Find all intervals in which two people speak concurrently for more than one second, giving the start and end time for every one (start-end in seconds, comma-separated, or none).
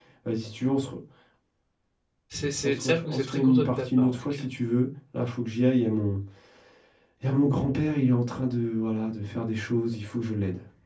2.6-4.4